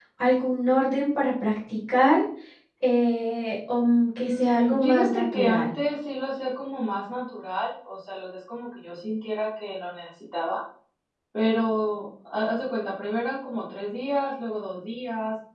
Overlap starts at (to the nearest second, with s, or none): 4 s